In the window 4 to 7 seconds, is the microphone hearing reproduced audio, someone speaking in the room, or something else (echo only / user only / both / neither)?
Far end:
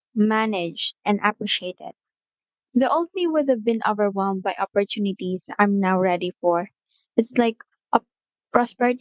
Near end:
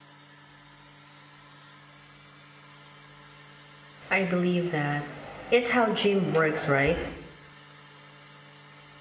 user only